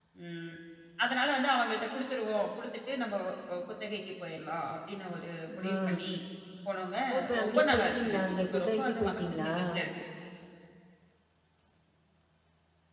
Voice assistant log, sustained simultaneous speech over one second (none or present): present